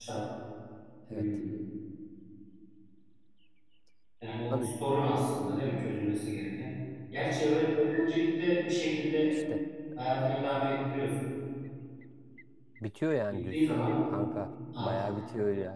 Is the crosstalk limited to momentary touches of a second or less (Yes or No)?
Yes